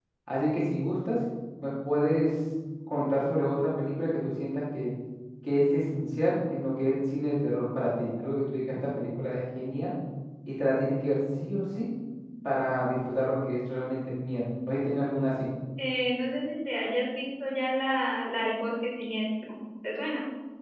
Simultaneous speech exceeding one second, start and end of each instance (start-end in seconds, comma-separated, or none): none